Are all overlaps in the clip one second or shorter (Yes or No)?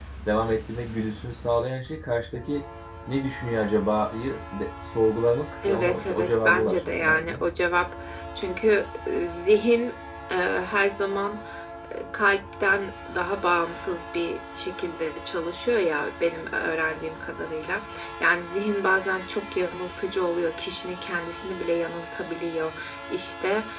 No